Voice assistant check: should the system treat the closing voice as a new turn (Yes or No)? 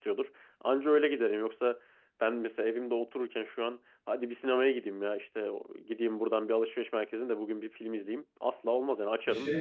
Yes